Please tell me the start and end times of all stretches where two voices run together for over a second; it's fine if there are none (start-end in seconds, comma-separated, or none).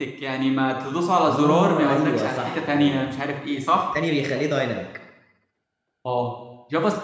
1.3-3.1